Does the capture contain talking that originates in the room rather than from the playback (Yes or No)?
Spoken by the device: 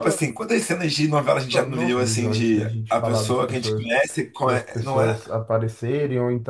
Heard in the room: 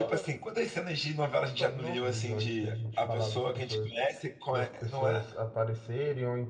No